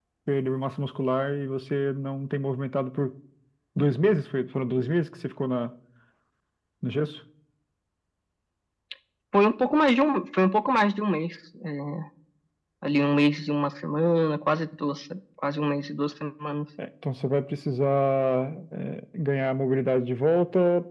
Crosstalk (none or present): none